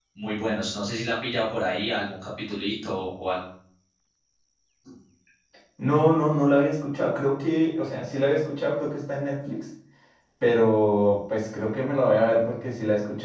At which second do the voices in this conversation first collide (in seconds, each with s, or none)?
none